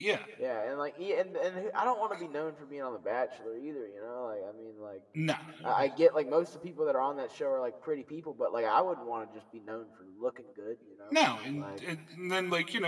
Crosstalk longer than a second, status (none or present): none